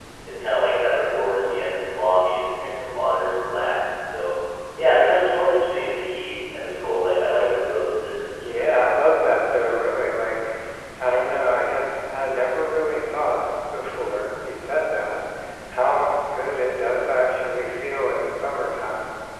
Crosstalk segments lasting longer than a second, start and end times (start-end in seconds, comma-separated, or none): none